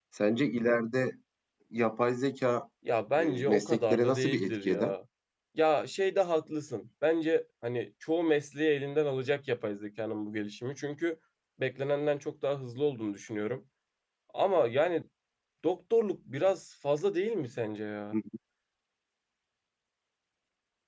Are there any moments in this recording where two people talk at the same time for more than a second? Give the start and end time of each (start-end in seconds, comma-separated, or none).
3.2-4.9